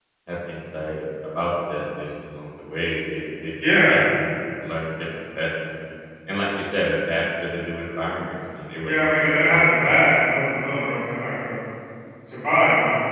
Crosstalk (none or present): present